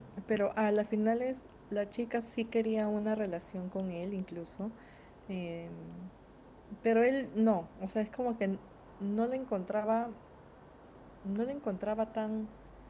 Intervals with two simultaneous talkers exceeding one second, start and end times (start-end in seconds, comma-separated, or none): none